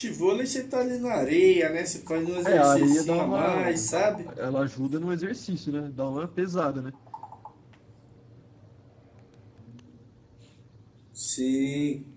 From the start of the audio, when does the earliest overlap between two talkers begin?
2.4 s

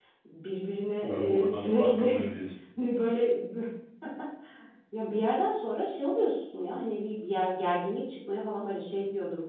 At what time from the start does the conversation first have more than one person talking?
1.0 s

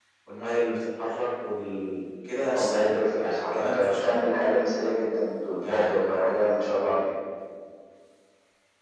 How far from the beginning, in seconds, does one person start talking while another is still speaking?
2.5 s

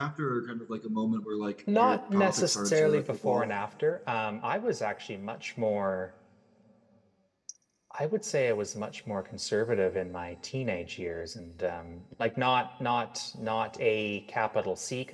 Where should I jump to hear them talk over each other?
1.7 s

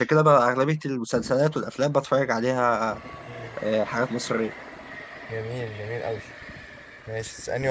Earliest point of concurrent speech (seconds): none

